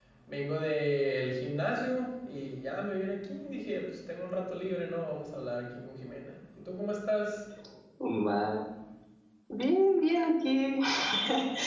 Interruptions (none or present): none